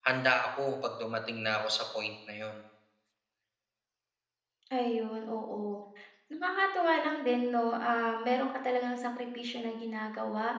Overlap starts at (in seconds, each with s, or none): none